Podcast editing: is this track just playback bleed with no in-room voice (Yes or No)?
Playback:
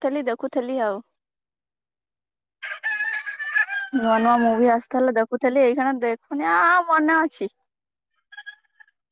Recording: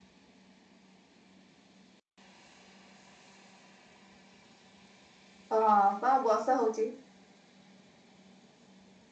No